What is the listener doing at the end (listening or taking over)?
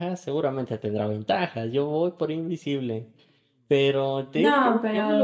listening